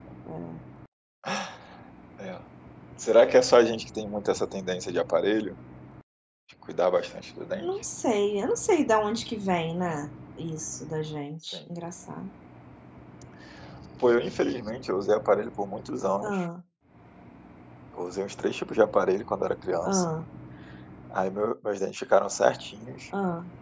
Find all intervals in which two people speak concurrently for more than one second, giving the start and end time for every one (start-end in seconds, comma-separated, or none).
none